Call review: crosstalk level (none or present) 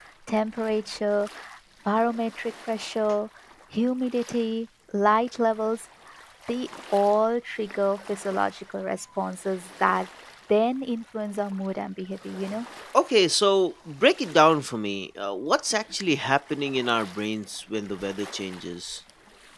none